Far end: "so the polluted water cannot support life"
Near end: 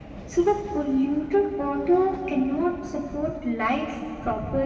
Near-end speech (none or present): none